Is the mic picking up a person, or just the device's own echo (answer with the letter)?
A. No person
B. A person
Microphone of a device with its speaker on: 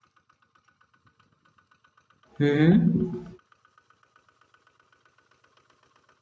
B